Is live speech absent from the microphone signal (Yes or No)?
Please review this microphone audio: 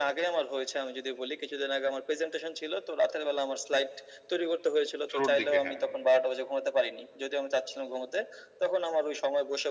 No